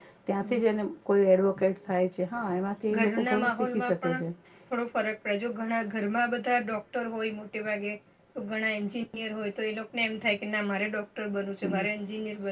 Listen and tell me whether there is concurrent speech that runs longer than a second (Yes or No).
Yes